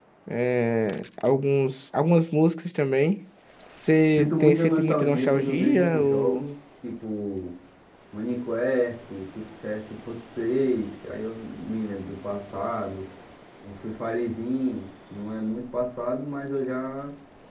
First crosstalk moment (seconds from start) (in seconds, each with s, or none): 4.2 s